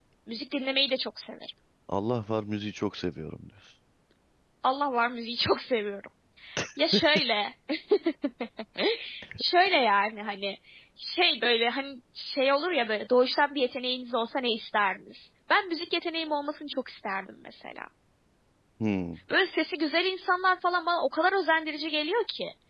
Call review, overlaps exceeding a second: none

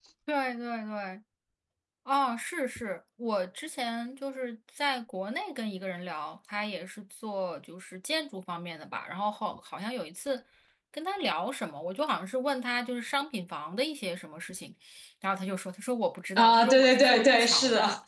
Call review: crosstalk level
present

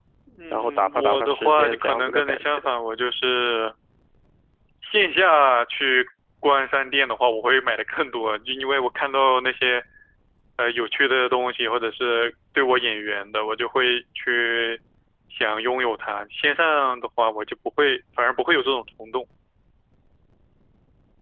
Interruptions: present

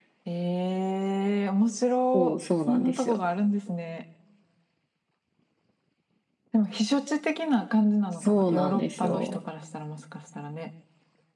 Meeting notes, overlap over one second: present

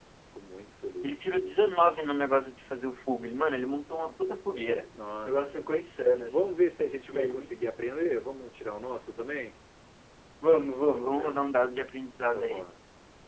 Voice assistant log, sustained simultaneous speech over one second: none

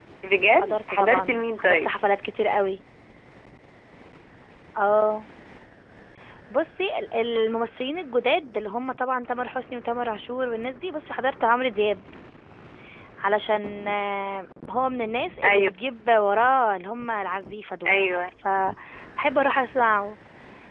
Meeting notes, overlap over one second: present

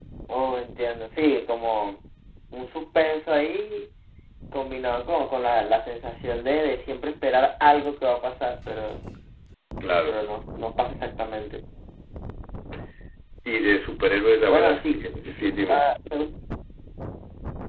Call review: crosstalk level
present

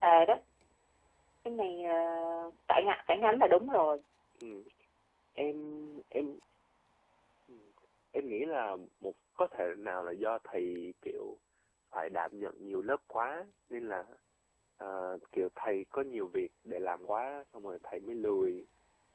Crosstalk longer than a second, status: none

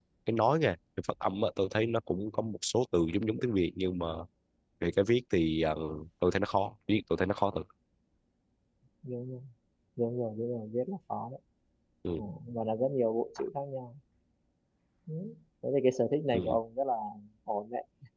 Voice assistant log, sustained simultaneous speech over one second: none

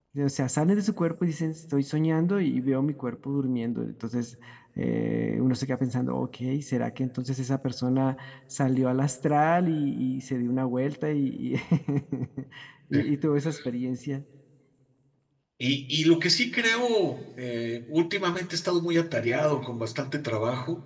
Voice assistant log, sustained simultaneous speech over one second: none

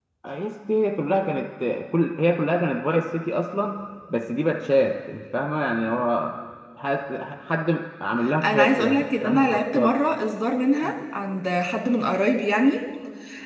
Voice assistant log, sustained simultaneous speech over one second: present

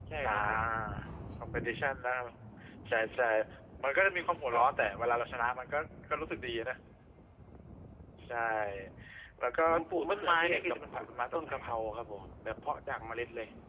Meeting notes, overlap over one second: present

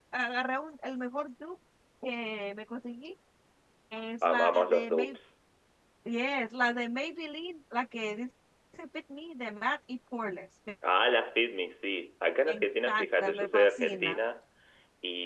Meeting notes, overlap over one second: present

